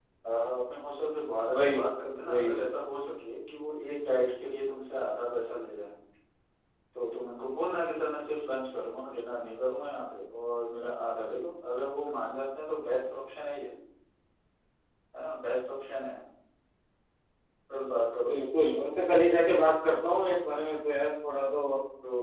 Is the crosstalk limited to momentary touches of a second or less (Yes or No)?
Yes